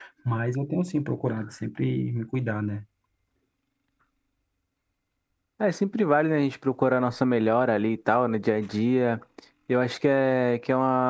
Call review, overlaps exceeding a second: none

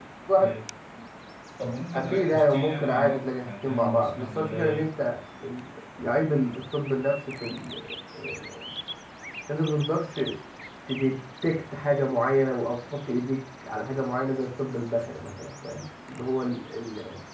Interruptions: present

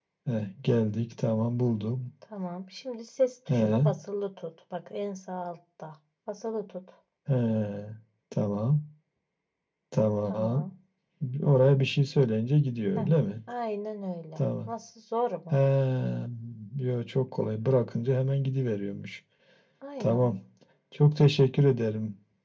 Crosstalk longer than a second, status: none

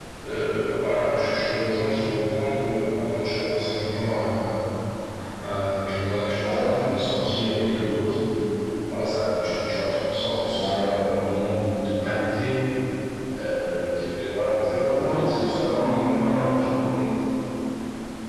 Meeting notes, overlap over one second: present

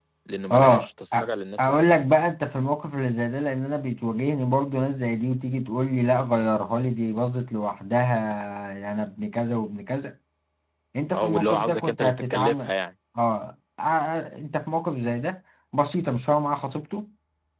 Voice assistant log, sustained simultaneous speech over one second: present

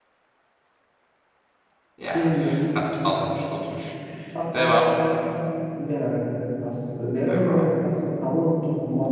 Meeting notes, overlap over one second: none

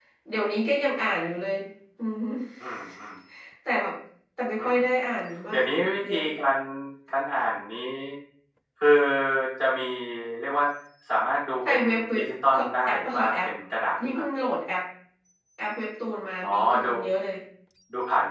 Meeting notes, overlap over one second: present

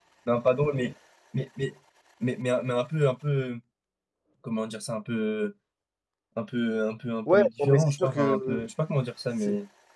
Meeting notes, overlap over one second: present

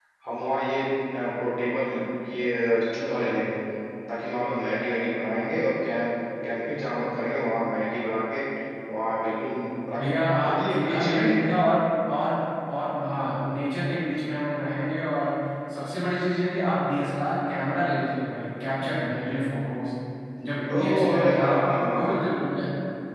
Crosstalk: present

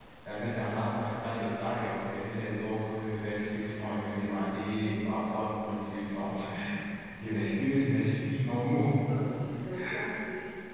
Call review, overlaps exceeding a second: none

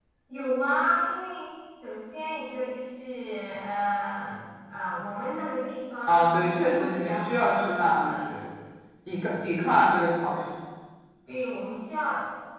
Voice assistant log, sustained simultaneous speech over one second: present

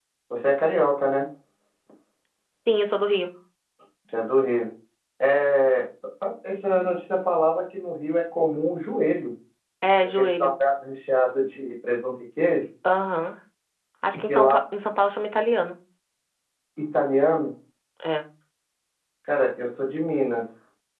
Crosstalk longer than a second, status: none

